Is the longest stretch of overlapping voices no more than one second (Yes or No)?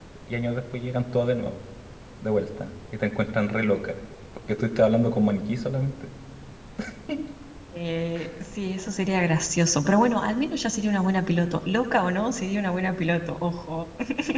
Yes